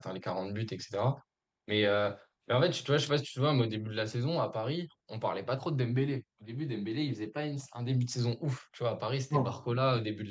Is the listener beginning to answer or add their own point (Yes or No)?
No